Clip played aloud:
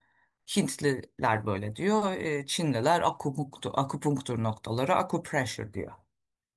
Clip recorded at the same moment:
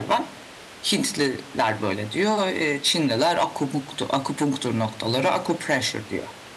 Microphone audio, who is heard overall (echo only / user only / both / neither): both